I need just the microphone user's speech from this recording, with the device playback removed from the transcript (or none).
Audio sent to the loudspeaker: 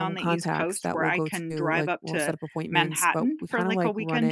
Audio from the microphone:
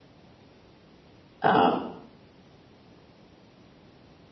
um,